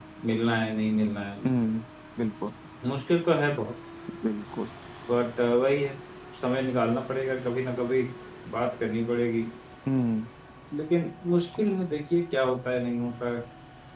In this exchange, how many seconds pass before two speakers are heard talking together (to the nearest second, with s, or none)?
none